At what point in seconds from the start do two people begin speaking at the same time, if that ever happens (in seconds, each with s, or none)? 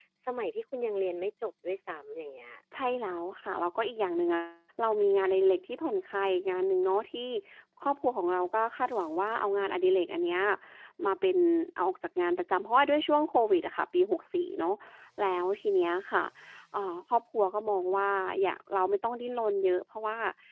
none